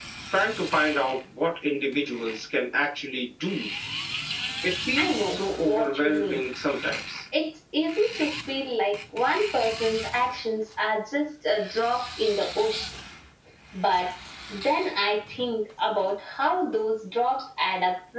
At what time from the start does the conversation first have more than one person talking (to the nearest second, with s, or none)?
5 s